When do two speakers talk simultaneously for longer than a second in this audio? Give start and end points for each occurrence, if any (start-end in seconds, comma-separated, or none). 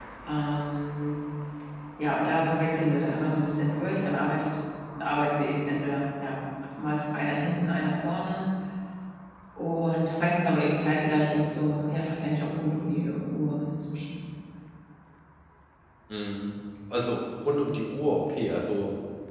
none